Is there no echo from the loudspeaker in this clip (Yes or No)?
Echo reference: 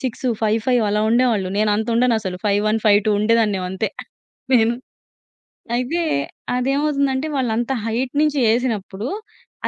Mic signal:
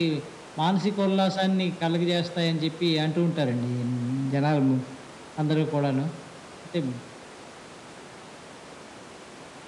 Yes